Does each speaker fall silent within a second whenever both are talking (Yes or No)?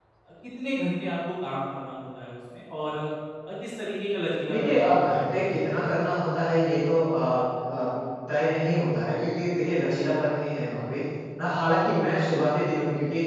No